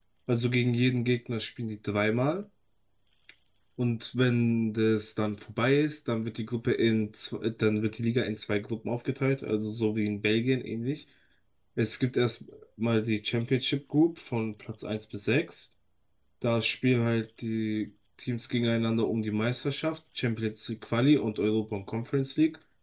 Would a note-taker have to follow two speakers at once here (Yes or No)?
No